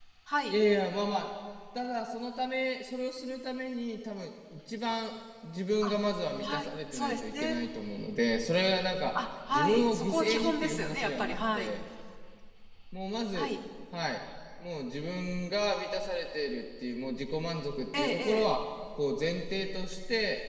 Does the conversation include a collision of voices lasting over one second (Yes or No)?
Yes